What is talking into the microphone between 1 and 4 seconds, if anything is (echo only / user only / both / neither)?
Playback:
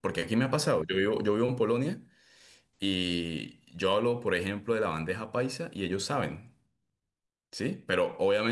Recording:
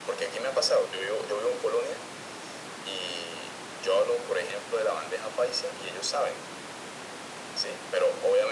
echo only